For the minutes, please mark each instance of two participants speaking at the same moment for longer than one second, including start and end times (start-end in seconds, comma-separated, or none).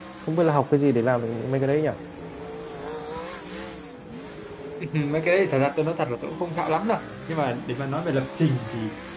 none